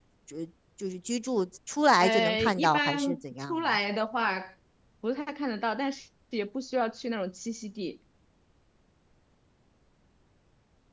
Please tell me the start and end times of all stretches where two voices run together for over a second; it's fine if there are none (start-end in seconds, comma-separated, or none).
2.0-3.8